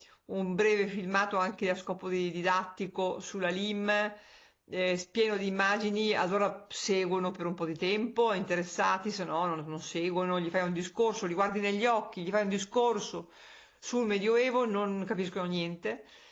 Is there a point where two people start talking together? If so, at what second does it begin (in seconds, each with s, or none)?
none